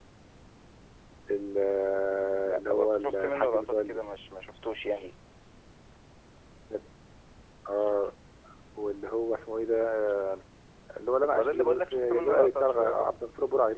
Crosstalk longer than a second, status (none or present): present